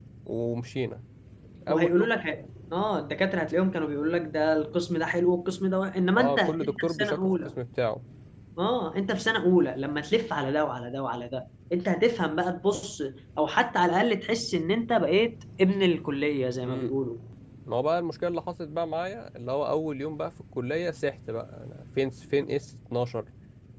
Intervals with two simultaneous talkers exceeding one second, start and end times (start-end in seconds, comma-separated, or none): 6.2-7.5